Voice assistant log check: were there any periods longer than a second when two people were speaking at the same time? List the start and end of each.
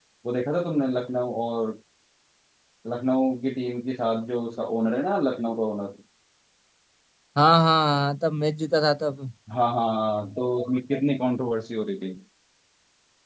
none

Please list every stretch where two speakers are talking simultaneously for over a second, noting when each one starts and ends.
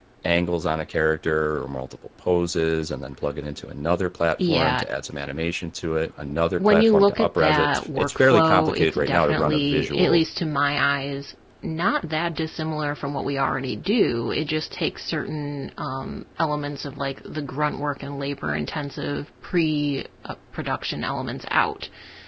6.6-10.2

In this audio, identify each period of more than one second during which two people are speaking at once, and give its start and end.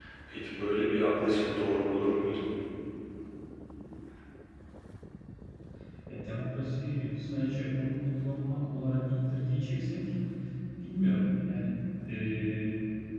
none

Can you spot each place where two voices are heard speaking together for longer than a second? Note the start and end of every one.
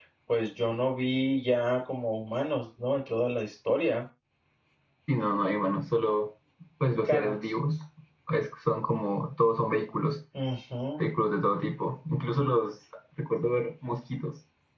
none

